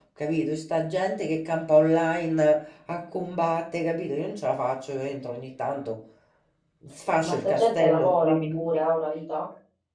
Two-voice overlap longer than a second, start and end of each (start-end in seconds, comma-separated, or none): 7.2-8.8